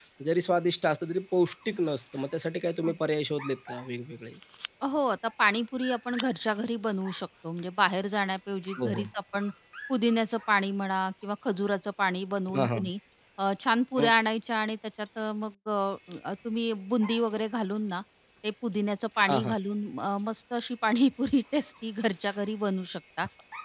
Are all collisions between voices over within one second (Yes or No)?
Yes